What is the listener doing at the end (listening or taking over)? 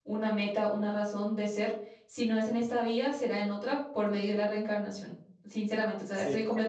listening